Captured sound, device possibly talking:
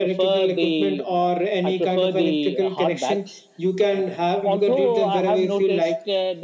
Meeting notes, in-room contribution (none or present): none